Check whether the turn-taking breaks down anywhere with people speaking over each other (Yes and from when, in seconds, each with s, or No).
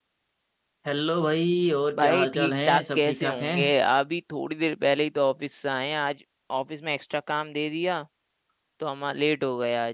Yes, from 1.9 s